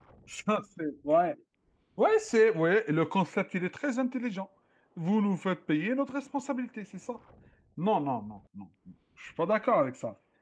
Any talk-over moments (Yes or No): No